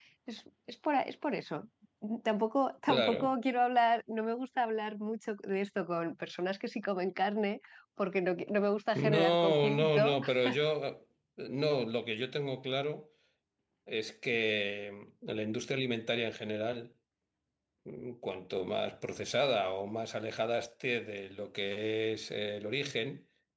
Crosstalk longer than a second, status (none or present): present